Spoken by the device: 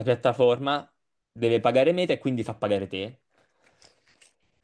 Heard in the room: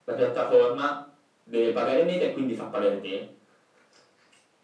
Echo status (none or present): present